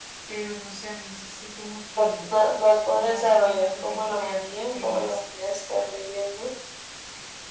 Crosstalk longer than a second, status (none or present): present